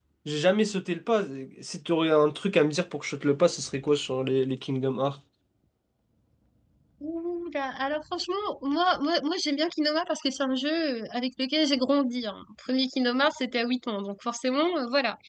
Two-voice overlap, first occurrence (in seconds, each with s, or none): none